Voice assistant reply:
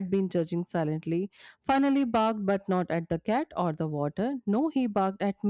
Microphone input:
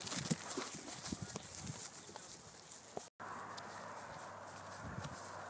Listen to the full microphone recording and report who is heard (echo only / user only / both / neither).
neither